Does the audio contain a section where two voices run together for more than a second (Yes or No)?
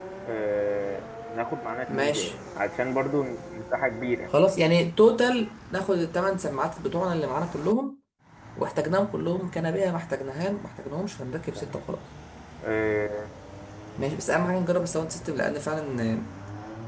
No